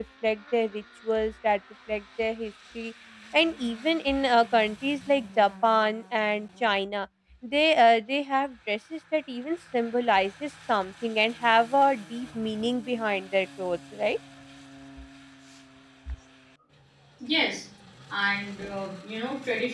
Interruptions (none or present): none